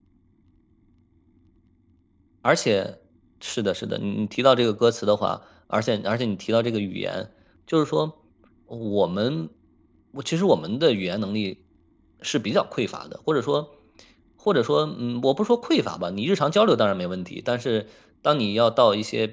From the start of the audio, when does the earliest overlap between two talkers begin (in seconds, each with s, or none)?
none